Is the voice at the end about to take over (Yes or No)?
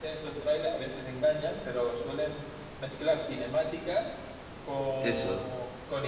No